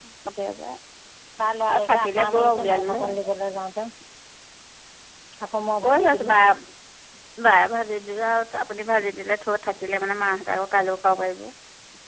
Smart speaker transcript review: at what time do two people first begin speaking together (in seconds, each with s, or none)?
1.7 s